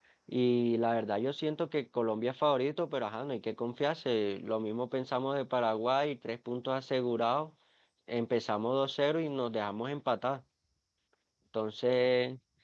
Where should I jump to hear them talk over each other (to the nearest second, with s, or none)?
none